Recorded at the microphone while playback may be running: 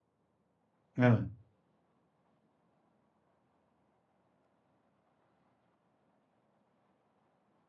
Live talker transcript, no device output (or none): Evet.